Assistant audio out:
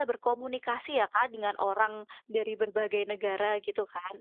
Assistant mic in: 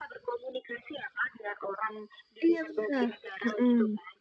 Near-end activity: present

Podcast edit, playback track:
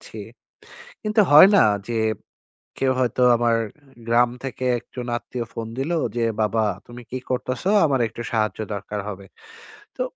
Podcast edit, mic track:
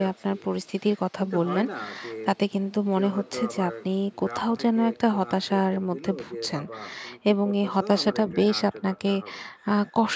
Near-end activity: present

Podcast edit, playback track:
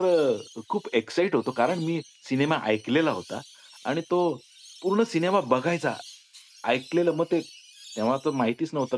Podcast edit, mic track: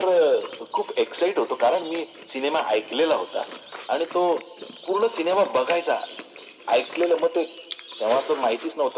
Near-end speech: none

